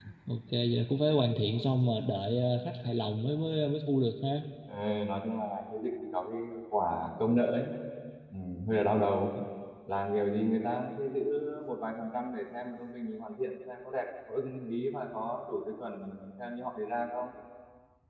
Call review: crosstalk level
none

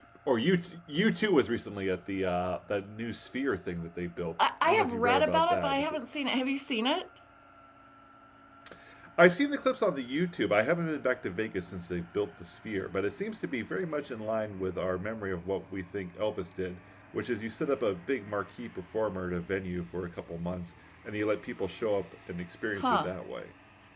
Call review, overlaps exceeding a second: present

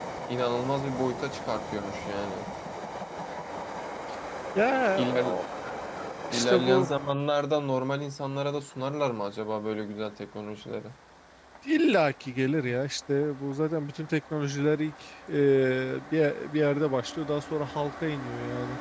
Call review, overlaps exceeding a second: none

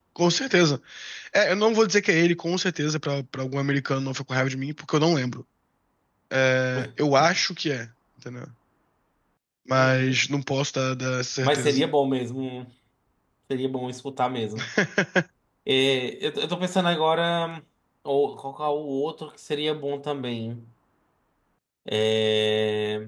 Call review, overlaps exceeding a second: none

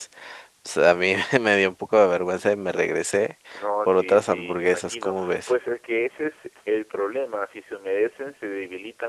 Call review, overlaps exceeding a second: present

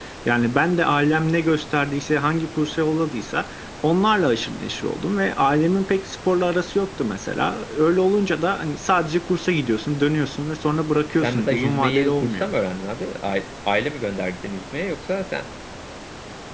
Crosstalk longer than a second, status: present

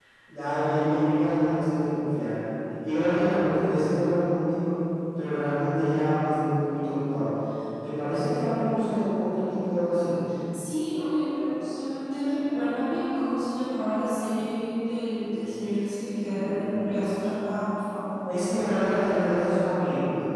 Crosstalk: none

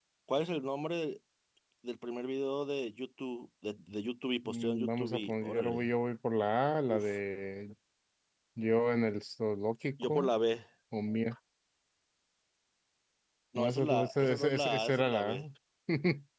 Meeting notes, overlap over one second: present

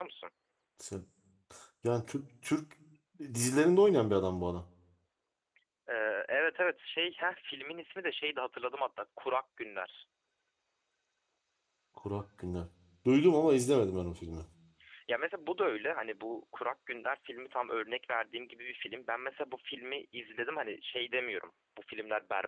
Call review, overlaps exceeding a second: none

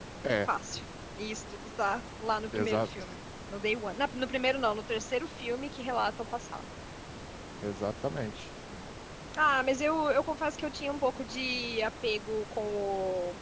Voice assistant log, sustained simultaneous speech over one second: none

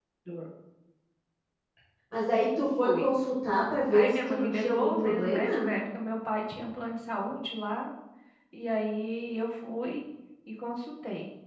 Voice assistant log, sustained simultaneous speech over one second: present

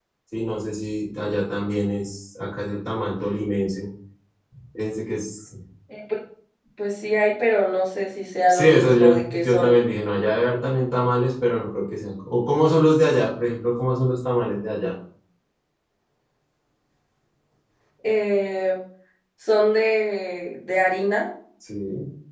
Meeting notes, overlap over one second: present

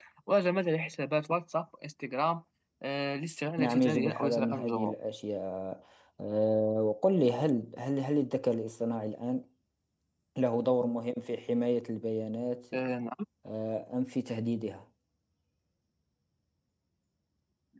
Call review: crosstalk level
present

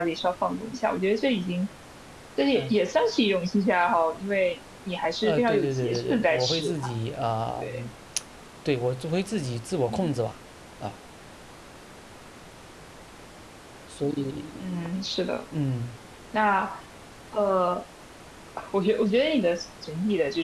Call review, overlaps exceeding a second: present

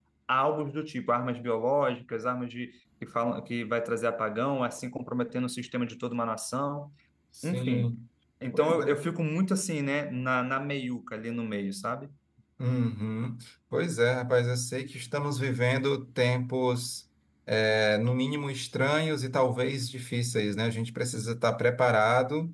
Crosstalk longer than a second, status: none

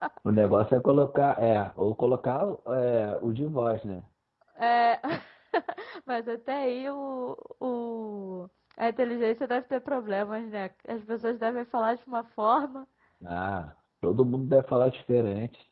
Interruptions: none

